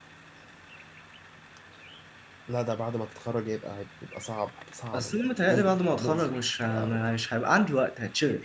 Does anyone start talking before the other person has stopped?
Yes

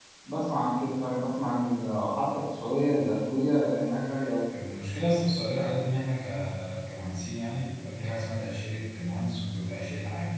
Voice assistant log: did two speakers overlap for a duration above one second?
No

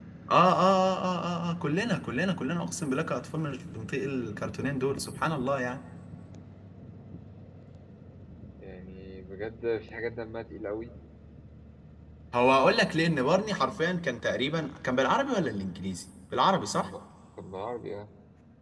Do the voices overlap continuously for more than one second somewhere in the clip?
No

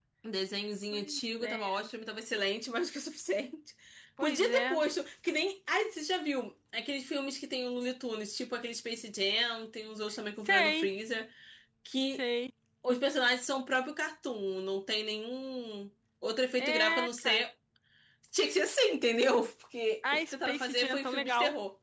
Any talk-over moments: Yes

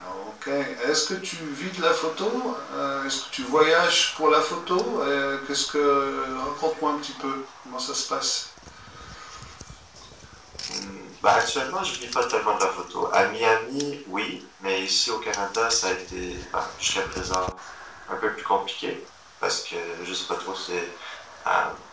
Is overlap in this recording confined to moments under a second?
Yes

